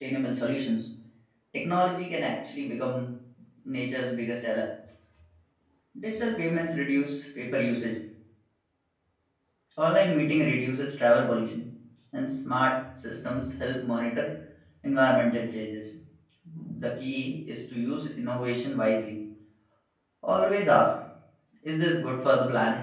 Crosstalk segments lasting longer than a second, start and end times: none

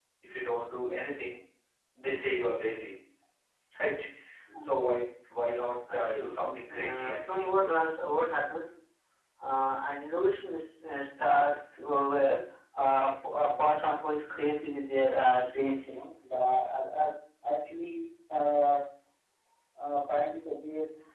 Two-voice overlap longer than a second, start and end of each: 5.9-7.7

